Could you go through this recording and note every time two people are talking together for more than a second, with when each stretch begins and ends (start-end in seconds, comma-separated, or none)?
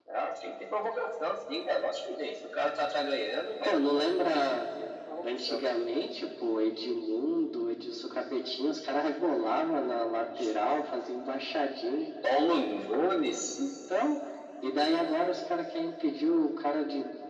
none